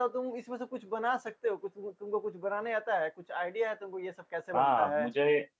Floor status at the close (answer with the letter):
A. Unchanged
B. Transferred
B